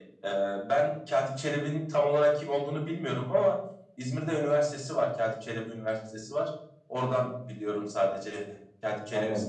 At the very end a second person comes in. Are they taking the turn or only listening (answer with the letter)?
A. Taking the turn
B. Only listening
A